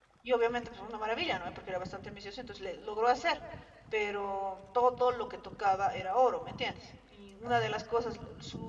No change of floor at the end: Yes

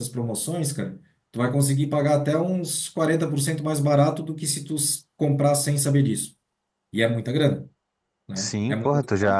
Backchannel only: No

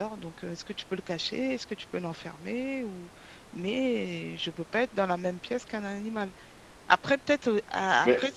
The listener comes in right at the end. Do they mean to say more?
No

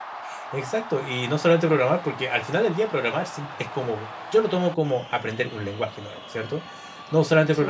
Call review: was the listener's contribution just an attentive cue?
Yes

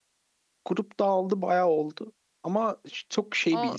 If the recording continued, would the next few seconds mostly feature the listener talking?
No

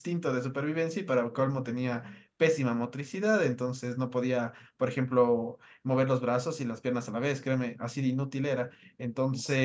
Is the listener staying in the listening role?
Yes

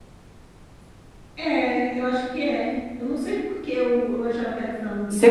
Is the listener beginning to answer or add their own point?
Yes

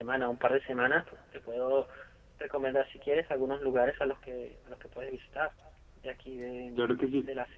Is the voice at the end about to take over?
Yes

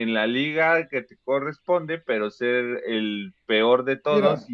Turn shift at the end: No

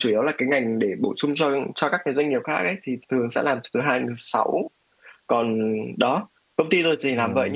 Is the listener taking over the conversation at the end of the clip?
No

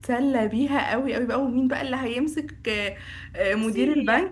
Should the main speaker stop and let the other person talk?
No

